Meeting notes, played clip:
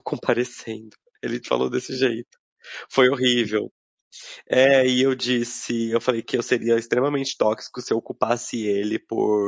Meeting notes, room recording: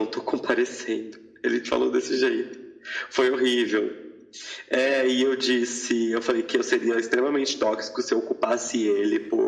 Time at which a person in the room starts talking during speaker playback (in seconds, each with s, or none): none